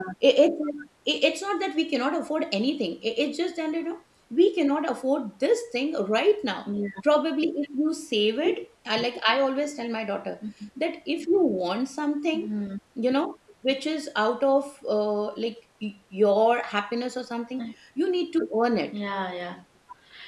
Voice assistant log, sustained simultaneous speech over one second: none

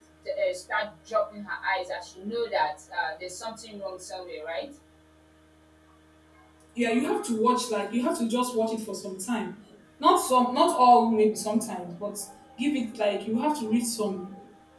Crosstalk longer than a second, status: none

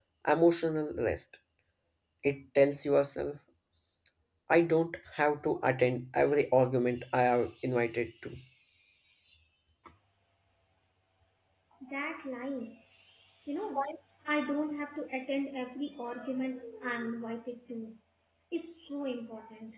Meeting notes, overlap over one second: none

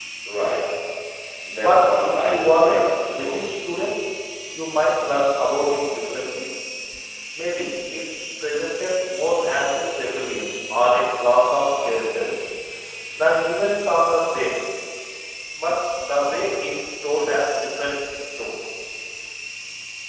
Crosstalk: present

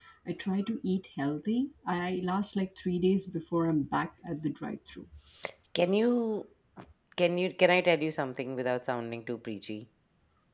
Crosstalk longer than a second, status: none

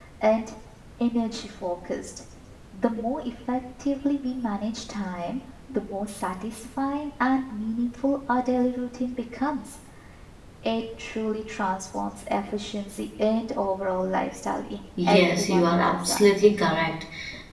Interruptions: present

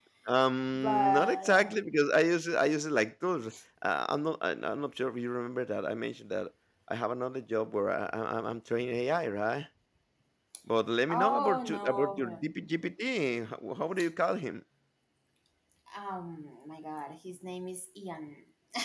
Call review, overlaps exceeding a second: present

